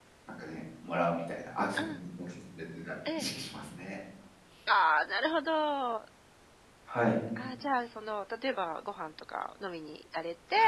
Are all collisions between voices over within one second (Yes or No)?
Yes